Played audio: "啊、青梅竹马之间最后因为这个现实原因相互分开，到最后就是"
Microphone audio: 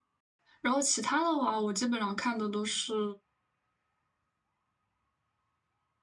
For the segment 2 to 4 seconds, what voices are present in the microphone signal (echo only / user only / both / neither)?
user only